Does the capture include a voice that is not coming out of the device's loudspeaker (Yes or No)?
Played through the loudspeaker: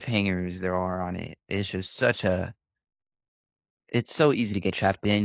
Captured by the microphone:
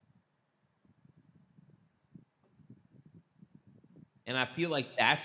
Yes